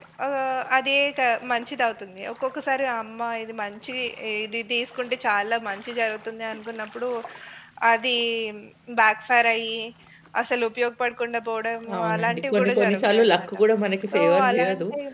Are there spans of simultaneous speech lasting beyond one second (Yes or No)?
Yes